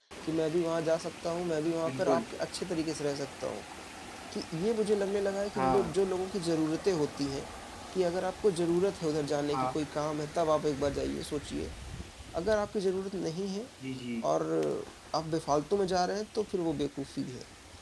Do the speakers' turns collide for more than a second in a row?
No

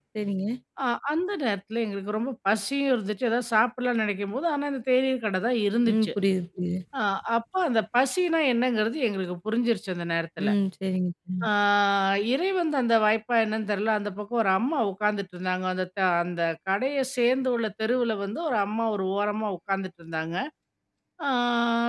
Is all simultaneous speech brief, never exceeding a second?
Yes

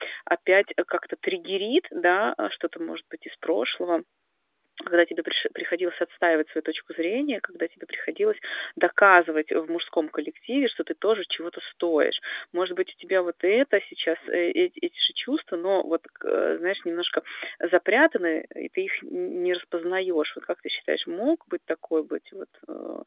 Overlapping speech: No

